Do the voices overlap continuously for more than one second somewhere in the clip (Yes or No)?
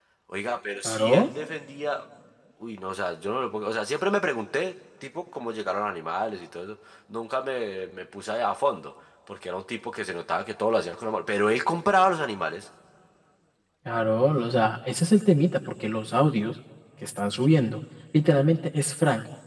No